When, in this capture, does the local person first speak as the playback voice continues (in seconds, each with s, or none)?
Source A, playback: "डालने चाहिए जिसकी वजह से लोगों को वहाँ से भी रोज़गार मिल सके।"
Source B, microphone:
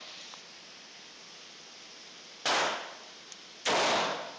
none